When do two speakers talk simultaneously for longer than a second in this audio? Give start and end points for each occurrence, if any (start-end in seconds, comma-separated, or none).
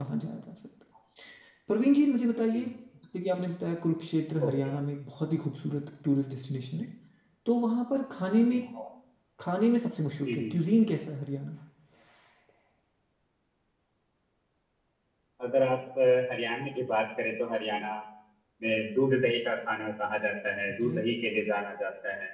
none